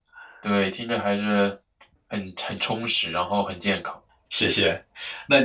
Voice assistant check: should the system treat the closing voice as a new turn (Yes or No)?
Yes